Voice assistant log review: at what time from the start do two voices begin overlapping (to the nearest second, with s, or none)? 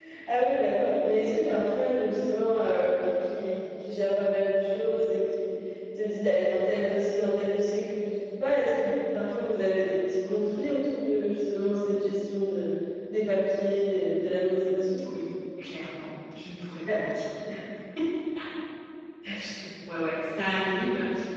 none